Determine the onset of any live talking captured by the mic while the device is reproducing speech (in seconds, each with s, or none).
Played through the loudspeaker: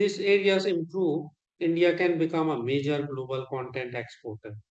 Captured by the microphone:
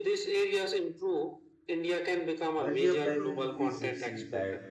2.6 s